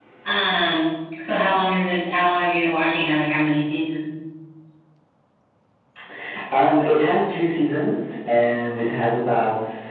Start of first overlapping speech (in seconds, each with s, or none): none